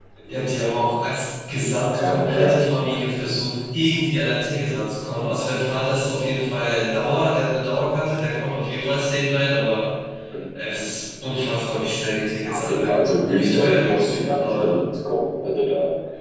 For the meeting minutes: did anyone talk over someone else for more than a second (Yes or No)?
Yes